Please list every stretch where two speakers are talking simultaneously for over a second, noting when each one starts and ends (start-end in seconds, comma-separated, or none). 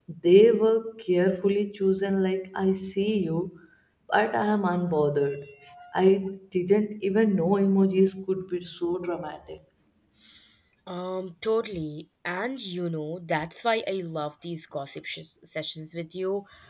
none